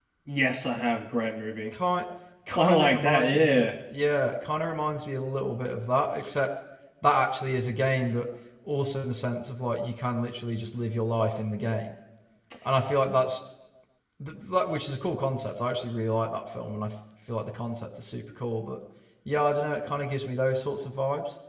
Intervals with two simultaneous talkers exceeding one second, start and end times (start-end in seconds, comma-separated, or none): 2.5-3.7